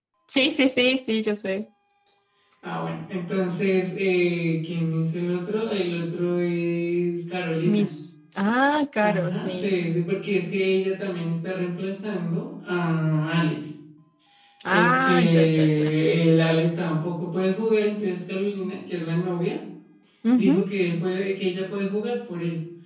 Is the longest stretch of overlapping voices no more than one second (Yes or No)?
No